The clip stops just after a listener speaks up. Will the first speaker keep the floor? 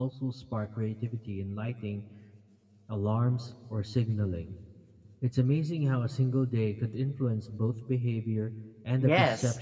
No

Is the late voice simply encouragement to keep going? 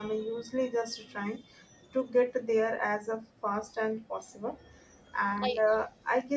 Yes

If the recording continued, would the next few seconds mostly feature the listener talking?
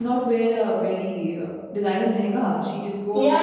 Yes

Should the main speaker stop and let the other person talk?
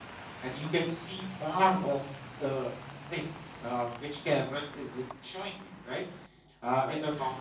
No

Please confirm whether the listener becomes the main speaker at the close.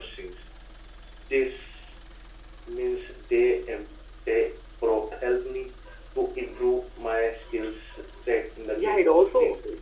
Yes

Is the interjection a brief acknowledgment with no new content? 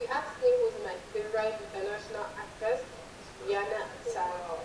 Yes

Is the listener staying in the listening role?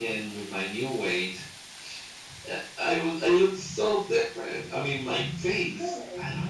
Yes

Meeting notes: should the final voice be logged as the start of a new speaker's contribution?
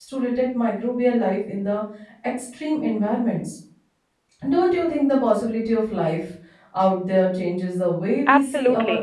Yes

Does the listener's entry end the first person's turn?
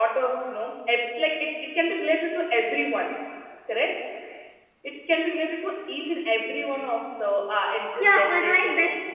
Yes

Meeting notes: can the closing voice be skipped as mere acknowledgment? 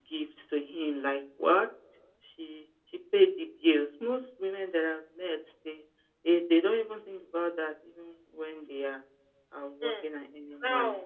No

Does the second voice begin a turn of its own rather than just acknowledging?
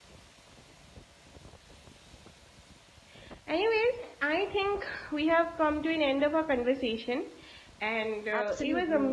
No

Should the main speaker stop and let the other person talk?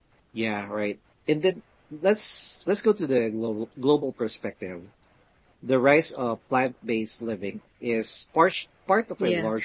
No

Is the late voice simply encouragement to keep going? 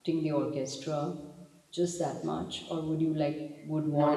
Yes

